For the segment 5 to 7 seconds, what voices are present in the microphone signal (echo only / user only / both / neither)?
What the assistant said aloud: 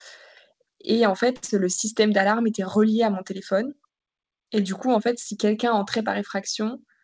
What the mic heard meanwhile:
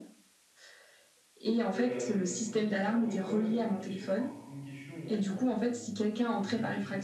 both